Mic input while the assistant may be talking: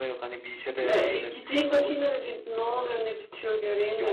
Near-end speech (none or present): present